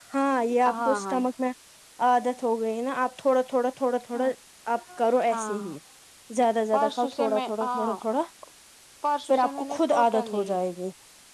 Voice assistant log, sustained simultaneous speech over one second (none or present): present